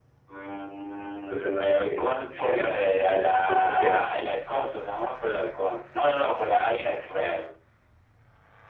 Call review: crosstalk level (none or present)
present